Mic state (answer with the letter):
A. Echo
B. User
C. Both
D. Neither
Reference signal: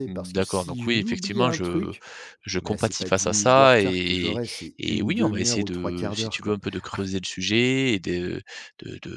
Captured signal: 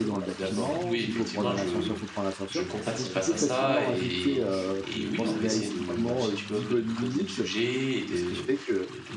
C